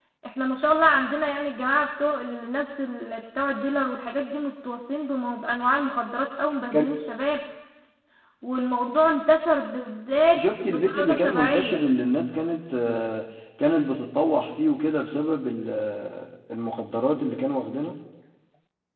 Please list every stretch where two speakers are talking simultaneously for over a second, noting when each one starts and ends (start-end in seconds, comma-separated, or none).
10.3-11.8